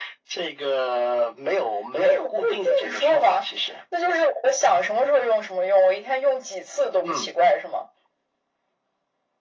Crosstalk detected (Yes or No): Yes